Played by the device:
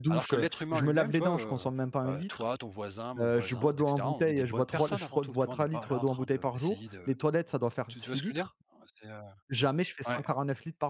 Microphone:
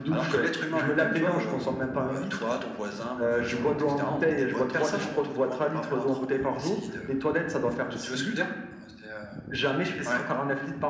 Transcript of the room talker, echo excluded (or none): none